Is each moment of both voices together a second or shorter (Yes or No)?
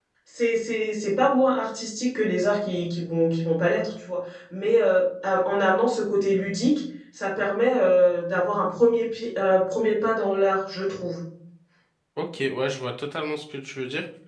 Yes